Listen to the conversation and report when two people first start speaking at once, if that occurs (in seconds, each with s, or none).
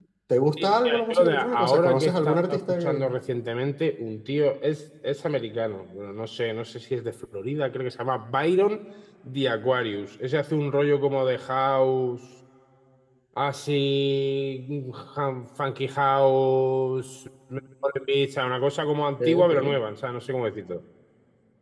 0.6 s